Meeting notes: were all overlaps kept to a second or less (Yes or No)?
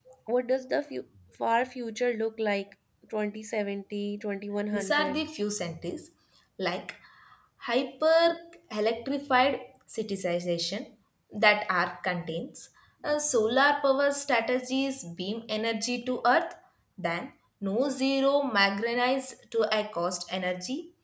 Yes